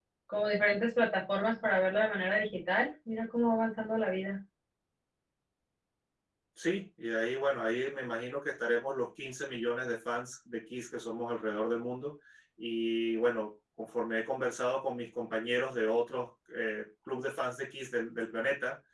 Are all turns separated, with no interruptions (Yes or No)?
Yes